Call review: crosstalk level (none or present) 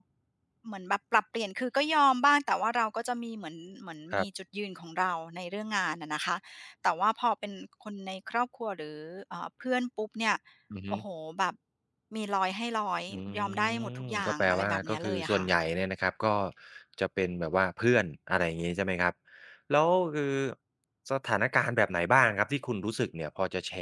present